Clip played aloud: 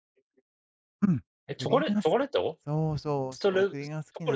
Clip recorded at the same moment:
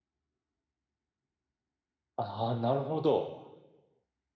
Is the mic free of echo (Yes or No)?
Yes